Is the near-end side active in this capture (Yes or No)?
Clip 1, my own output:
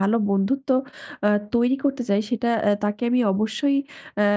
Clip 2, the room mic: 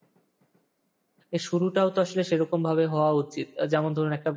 Yes